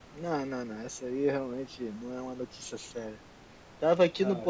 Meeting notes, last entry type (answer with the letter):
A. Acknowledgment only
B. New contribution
A